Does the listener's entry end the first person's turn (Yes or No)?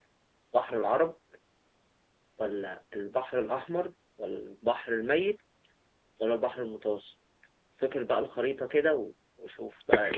Yes